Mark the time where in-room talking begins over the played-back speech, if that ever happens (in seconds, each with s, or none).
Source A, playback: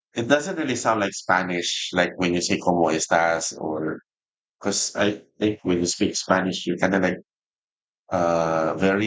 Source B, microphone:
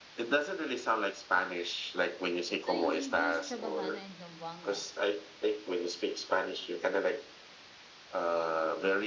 2.6 s